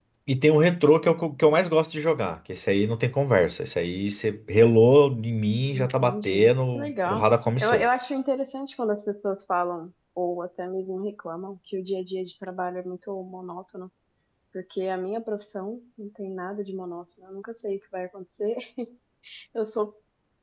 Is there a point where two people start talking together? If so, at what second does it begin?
5.7 s

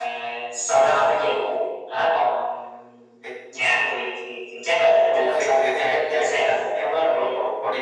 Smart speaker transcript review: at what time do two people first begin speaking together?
5.1 s

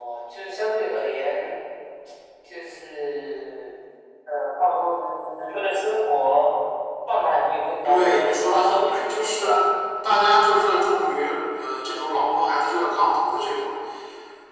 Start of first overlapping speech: 7.8 s

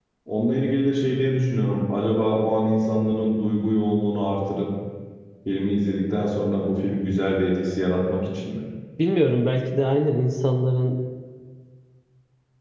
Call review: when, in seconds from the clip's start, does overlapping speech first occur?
none

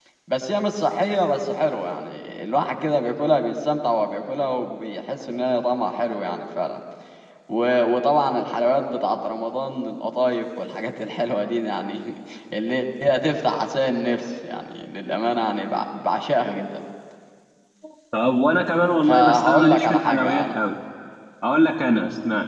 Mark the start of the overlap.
19.0 s

